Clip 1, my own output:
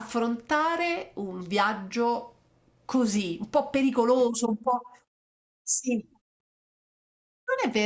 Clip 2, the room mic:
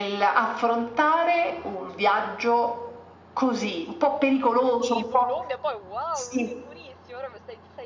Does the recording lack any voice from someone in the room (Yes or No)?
No